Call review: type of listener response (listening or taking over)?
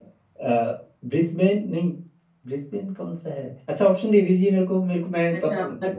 taking over